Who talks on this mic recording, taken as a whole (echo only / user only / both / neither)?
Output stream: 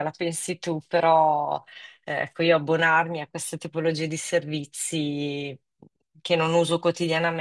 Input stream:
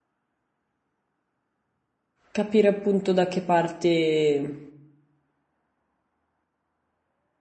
user only